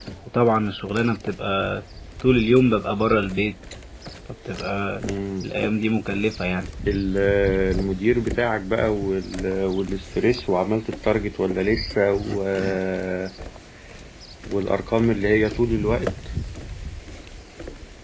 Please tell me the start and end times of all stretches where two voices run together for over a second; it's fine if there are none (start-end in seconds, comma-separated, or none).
none